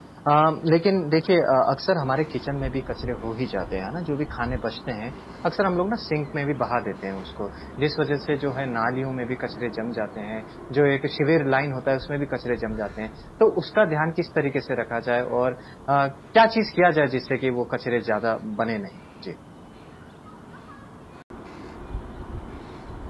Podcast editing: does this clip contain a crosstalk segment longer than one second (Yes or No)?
No